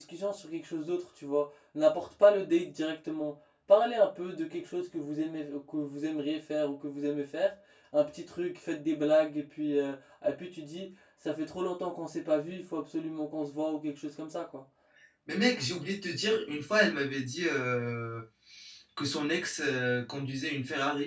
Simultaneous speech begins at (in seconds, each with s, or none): none